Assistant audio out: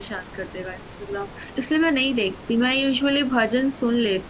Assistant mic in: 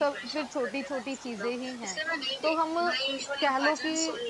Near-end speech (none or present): present